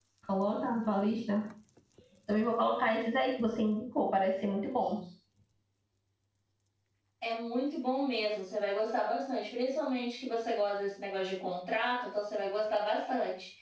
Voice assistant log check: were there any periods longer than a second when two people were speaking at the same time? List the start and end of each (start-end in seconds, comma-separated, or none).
none